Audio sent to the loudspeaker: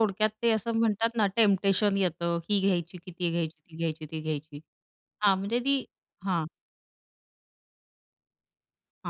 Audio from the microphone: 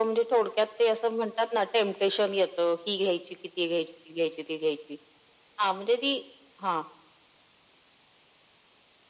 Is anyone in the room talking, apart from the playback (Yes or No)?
No